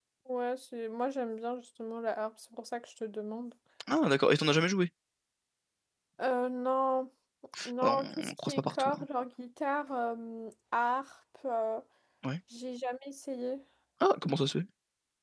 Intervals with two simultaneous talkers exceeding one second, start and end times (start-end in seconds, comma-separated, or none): 7.8-9.0